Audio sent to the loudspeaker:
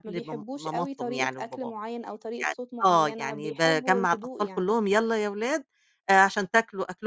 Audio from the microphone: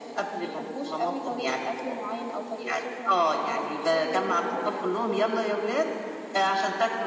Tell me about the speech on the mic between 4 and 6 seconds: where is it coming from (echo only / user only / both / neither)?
both